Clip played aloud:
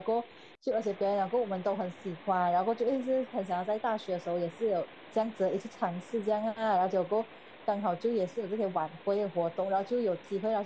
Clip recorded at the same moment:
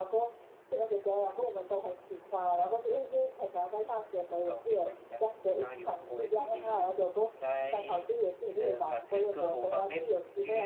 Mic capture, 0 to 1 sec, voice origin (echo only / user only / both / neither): echo only